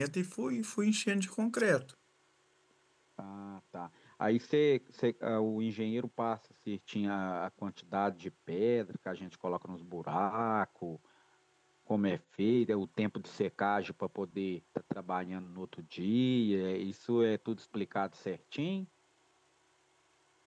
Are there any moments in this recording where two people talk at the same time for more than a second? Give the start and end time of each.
none

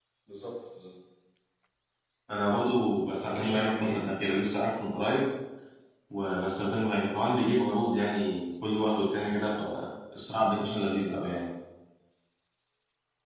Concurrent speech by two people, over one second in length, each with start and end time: 3.1-4.4

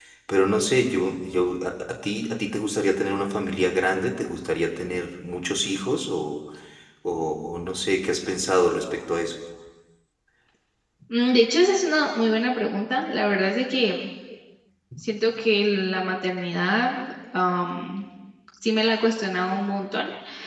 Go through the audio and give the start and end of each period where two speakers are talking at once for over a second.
none

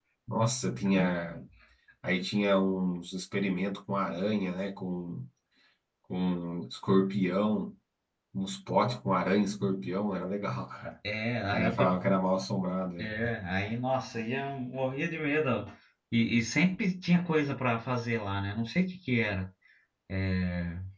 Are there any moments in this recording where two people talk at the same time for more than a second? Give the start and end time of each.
none

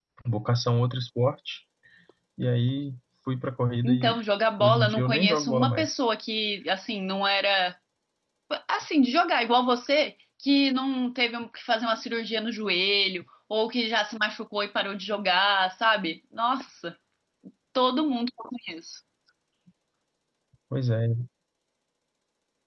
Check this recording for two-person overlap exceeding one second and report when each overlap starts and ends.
4.6-6.0

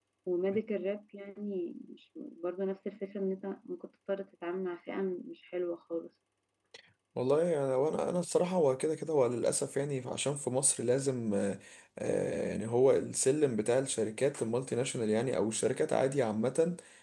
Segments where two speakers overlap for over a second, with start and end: none

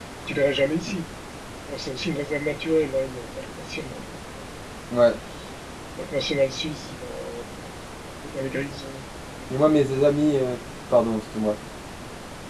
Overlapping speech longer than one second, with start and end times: none

